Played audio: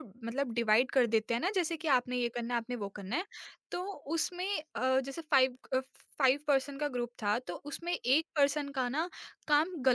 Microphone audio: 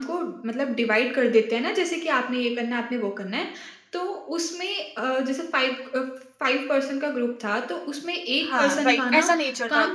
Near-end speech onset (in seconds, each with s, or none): 8.4 s